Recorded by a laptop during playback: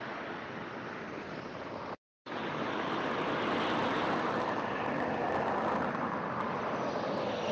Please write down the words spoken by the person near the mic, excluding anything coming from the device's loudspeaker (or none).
none